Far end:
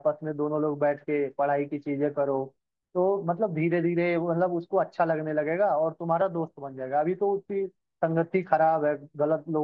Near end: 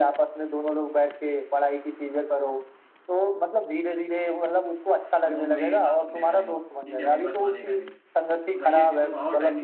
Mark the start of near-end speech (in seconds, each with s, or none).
5.2 s